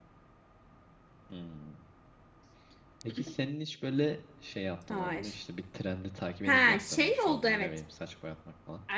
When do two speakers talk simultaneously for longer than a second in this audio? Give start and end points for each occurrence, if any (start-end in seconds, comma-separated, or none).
6.4-7.7